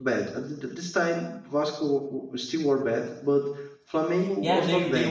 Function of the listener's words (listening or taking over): taking over